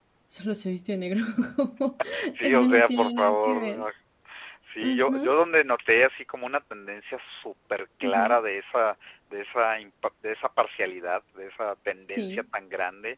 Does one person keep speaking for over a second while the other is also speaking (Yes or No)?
Yes